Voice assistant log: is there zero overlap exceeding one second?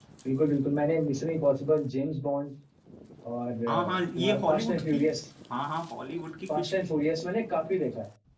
No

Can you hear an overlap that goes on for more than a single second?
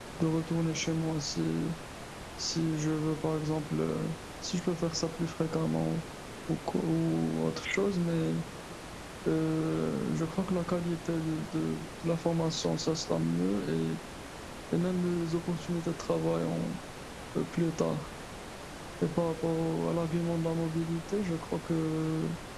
No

